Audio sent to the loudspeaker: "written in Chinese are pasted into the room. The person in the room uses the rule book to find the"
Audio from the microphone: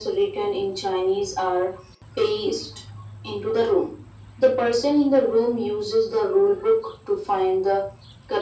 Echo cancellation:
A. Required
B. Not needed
A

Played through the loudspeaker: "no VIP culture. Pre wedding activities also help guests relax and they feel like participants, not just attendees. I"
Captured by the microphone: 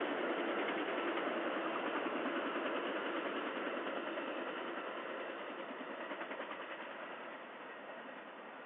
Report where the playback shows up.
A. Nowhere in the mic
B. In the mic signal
A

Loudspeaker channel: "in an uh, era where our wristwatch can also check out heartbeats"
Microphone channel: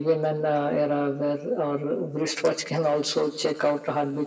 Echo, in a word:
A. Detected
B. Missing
A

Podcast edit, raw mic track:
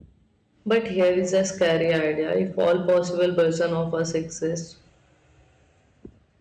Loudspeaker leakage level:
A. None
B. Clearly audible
A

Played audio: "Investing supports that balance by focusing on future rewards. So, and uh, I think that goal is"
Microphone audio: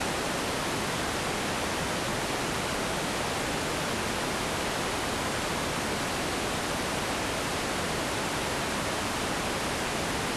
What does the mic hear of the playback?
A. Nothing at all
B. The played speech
A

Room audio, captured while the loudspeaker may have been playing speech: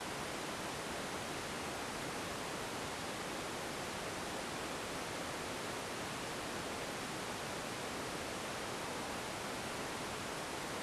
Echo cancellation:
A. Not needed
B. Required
A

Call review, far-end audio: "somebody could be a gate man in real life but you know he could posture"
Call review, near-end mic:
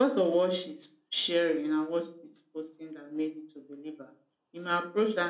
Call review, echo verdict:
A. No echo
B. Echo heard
A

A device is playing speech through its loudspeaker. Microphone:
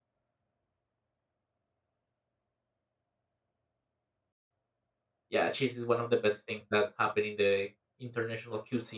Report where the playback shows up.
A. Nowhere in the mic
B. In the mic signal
A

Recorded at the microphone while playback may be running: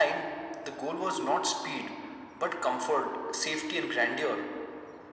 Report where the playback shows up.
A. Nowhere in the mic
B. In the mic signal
B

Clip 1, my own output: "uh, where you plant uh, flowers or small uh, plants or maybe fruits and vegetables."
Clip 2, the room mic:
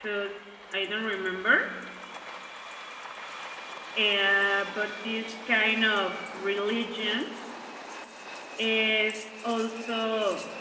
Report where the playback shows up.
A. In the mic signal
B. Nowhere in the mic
B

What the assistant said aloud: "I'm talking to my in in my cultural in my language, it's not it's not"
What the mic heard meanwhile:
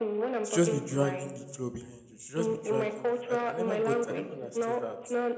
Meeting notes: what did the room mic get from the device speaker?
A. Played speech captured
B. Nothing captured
A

